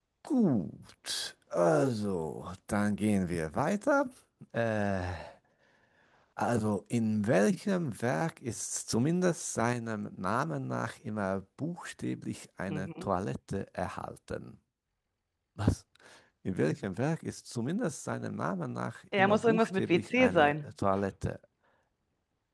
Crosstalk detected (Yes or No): Yes